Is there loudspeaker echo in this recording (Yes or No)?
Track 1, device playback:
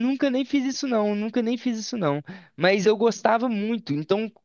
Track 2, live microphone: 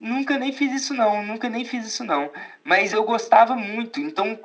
Yes